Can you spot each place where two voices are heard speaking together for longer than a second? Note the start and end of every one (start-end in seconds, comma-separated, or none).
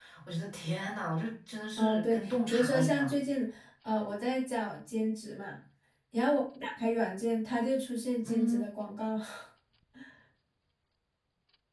1.8-3.1